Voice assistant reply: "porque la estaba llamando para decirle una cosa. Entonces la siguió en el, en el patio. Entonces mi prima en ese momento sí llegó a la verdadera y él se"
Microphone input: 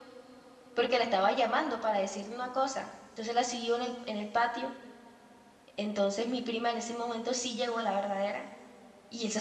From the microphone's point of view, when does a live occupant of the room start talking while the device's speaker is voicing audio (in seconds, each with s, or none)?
none